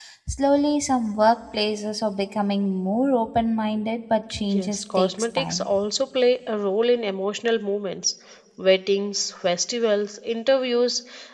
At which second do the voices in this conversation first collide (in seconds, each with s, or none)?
4.4 s